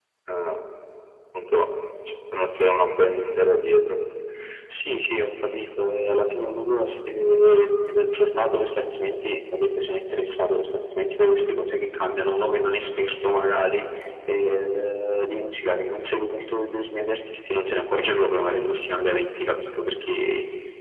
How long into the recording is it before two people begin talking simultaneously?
none

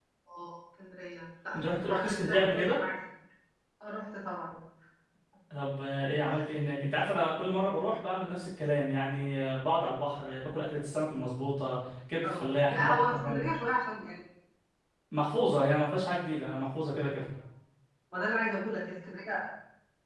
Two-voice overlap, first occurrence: 1.5 s

